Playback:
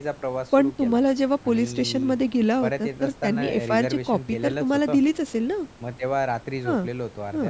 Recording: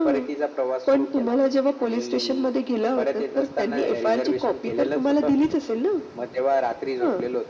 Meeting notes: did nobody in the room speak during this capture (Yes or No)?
Yes